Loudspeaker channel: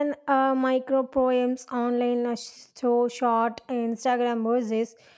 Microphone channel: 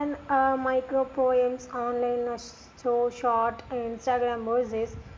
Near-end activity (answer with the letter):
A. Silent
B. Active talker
A